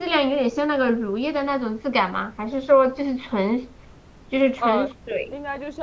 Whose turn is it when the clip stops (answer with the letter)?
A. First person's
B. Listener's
B